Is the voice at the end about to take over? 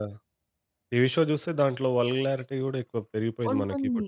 Yes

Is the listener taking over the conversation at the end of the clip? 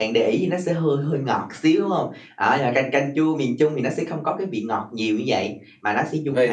Yes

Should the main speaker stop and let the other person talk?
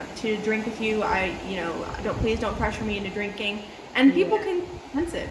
No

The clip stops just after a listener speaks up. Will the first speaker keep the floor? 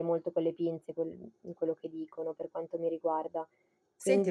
No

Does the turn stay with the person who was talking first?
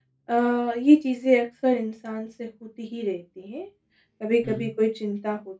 Yes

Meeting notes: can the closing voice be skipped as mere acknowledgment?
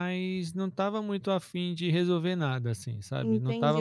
No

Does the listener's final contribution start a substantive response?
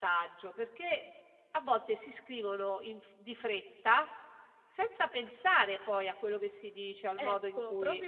Yes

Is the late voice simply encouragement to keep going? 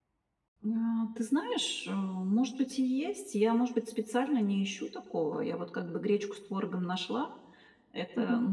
Yes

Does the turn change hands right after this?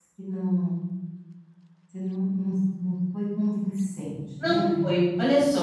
Yes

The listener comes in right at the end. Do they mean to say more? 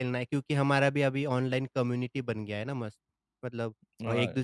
No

